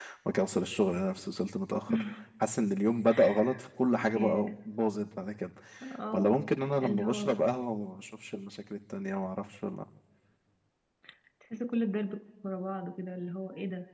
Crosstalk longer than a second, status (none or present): none